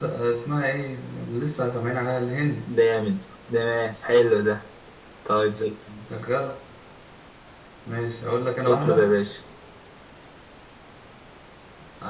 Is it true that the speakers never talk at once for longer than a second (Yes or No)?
Yes